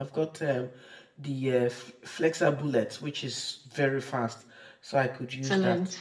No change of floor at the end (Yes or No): No